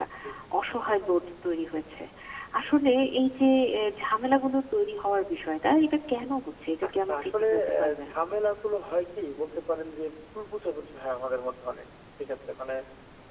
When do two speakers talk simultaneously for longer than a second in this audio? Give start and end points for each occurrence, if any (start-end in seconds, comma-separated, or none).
6.9-8.1